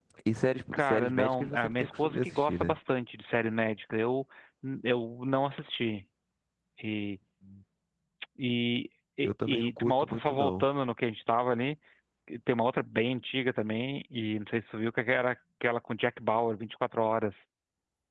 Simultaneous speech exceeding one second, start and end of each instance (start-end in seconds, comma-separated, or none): 0.7-2.8, 9.2-10.7